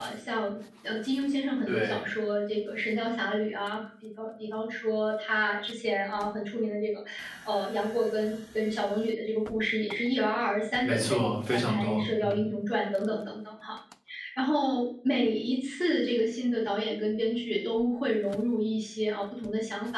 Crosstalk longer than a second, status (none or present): present